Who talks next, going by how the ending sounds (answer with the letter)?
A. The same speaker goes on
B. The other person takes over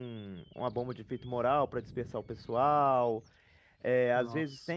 A